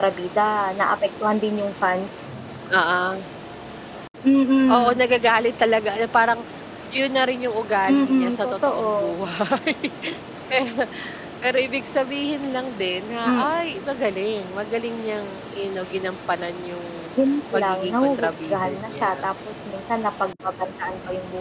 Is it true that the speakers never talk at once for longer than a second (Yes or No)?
No